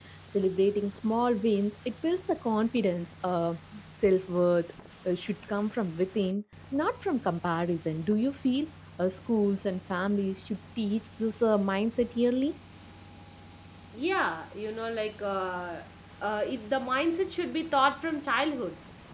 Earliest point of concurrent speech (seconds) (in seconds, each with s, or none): none